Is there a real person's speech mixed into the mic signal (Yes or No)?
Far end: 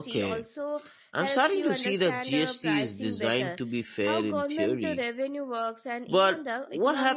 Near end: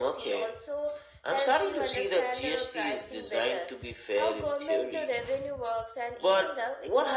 No